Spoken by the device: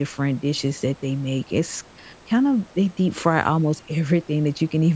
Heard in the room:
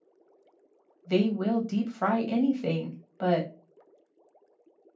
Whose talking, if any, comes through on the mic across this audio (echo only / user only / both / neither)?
user only